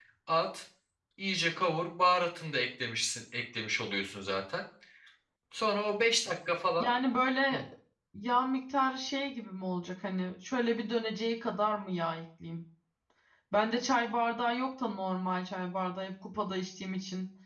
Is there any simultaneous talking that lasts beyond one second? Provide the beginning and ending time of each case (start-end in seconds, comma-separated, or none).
none